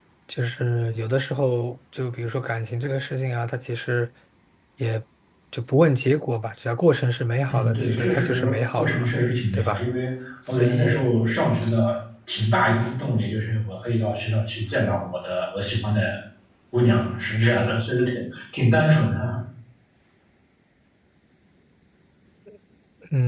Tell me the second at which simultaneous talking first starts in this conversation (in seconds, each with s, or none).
7.5 s